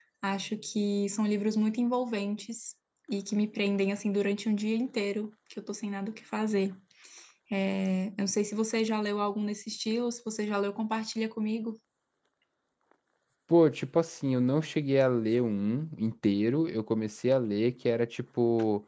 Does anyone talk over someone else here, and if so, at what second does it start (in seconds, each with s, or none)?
none